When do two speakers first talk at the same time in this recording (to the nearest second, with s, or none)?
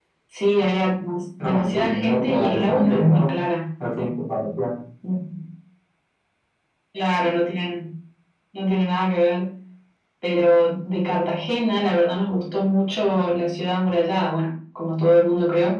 1 s